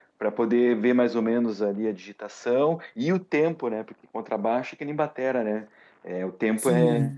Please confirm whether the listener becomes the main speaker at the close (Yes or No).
Yes